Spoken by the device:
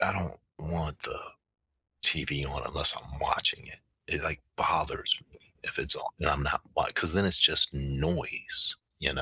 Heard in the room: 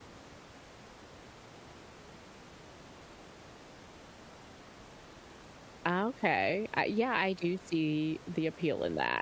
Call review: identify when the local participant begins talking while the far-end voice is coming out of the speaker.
5.8 s

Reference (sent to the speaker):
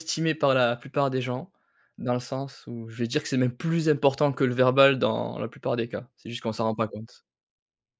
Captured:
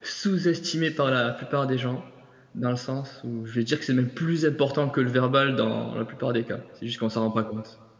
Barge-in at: none

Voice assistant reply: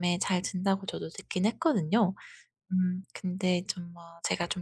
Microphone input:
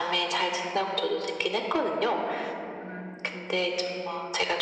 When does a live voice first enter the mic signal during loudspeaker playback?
none

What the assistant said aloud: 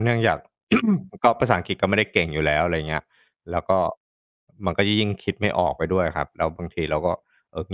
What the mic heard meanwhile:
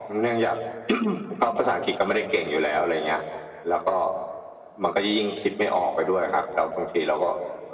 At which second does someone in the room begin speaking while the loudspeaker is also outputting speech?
none

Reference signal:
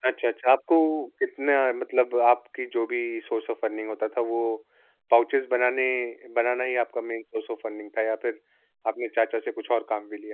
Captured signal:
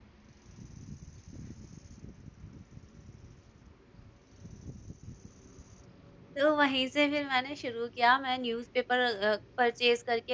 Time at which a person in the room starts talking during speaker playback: 6.4 s

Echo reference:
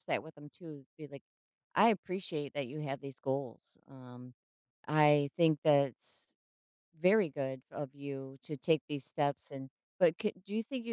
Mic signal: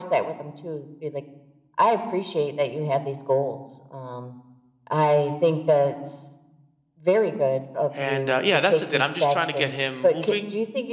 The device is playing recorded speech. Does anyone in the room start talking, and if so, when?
7.9 s

